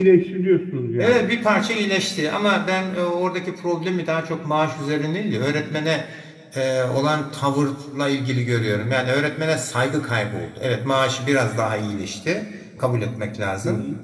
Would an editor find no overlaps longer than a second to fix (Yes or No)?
Yes